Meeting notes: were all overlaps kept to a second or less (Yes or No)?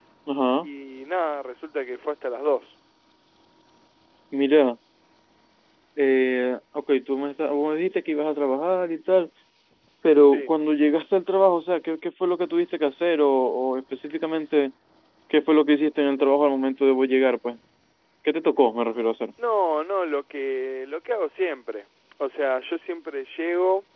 Yes